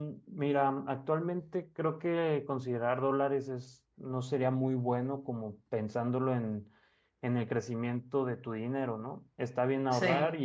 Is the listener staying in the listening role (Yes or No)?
Yes